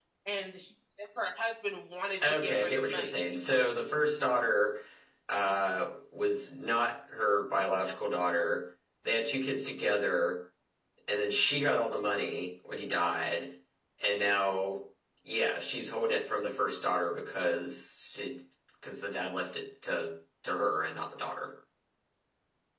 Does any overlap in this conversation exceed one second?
Yes, from 2.2 s

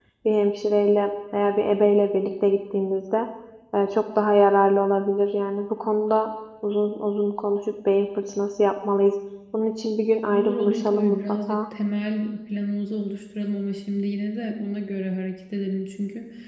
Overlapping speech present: Yes, from 10.3 s

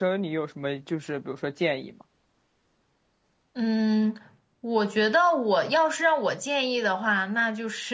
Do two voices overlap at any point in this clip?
No

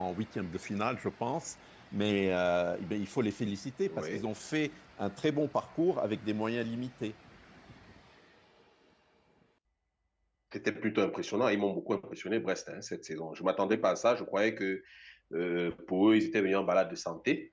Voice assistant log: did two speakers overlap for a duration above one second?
No

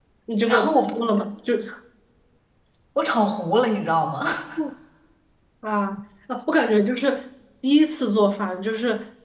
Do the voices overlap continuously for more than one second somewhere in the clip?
No

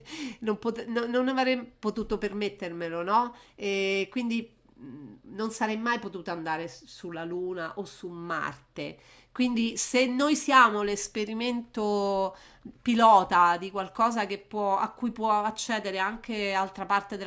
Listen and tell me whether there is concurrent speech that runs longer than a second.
No

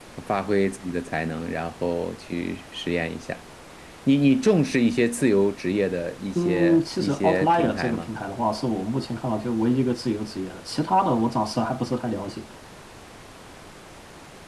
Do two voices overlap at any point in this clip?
Yes, from 6.3 s

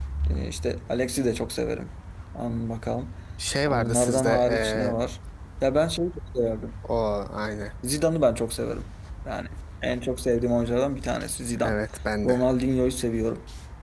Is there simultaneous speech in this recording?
Yes, from 3.7 s

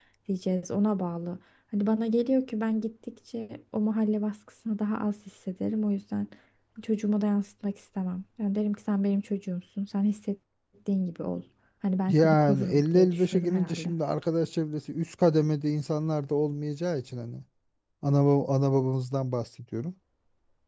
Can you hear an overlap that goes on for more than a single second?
Yes, from 12.0 s

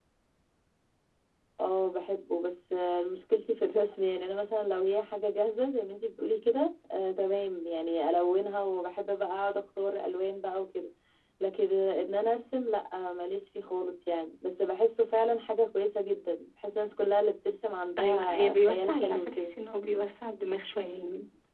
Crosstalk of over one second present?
Yes, from 18.0 s

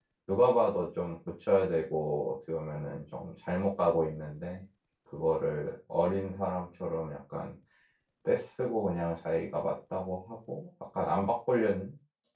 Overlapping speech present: No

